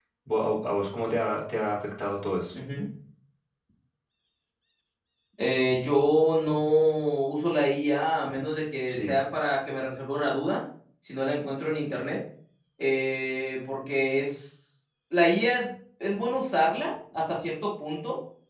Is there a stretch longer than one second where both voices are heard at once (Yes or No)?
No